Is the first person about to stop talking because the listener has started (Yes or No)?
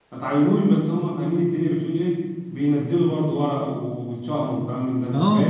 Yes